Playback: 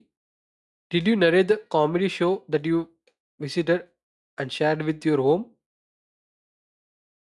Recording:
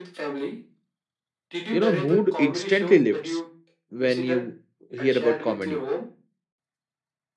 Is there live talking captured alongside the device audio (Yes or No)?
Yes